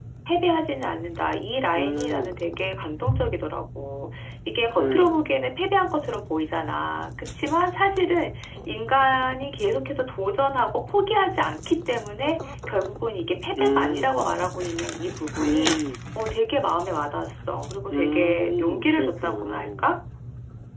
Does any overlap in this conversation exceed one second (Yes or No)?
Yes